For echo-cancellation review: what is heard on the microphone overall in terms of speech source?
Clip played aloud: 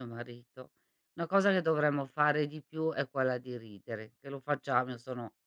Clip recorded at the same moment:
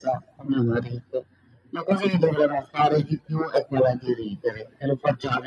echo only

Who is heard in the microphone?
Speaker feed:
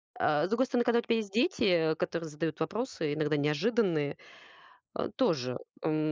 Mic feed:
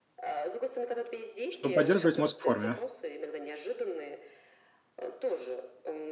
both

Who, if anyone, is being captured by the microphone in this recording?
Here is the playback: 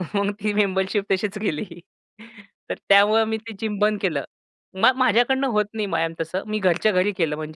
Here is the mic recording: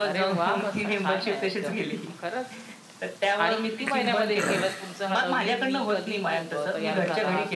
both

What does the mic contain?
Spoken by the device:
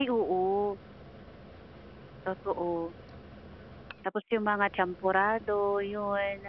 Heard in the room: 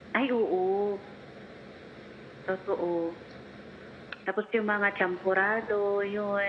echo only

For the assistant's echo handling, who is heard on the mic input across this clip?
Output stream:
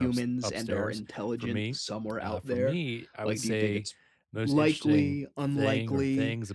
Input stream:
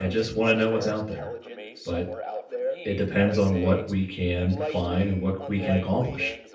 both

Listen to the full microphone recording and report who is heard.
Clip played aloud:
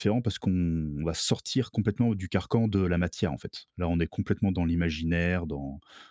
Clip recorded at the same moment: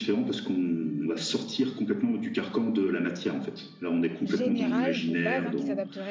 both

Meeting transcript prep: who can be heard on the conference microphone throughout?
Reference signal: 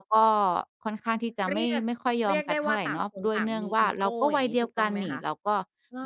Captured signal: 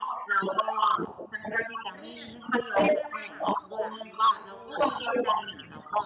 echo only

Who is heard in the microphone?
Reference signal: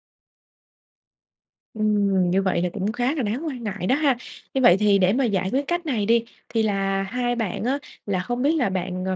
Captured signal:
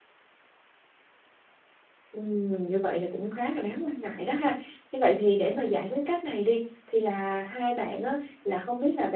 echo only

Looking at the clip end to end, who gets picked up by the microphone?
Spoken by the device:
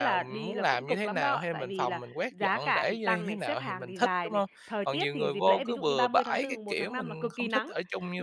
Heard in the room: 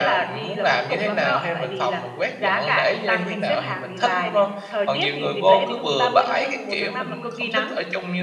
echo only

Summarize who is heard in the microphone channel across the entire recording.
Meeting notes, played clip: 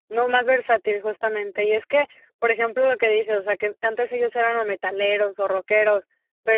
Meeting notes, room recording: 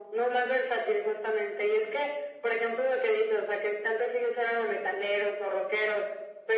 echo only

